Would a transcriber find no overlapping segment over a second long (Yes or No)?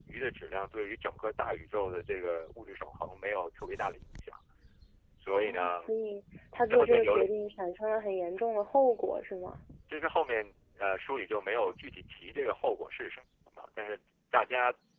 Yes